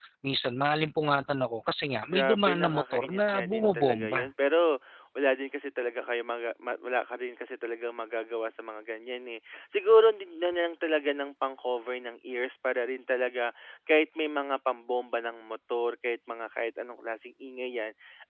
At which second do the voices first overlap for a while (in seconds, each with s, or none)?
2.1 s